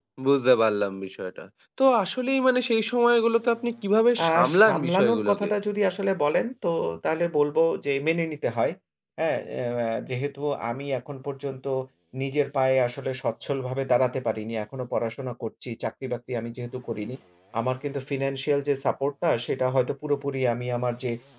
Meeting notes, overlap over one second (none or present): present